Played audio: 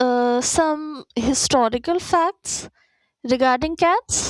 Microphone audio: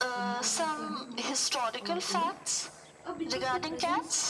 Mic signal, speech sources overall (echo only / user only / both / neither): both